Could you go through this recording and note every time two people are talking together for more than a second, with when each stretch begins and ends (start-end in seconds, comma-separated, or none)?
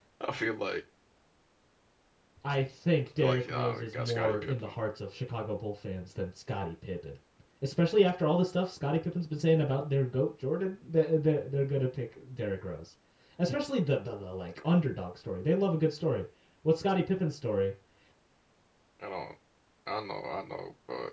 3.2-4.8